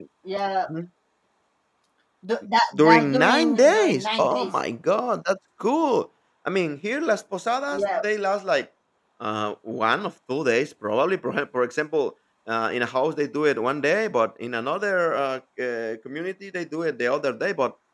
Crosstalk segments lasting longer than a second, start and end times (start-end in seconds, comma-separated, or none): 2.7-4.5